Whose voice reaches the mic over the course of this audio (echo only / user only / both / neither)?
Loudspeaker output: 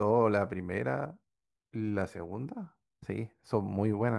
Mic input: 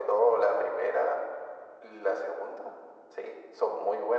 echo only